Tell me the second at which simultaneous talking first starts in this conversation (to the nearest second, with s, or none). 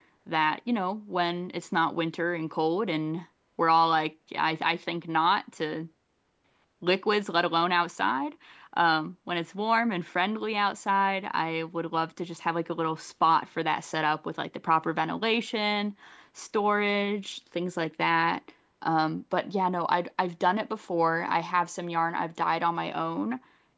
none